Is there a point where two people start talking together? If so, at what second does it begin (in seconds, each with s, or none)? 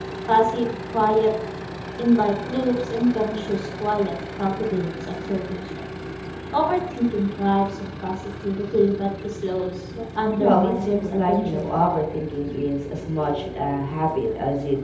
10.4 s